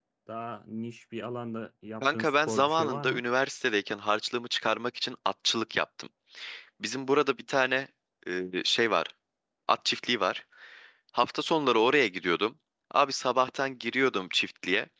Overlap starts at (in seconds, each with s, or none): 2.0 s